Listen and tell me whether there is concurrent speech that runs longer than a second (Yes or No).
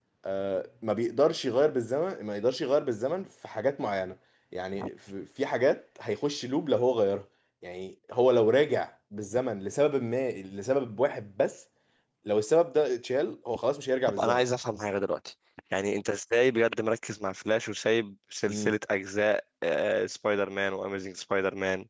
No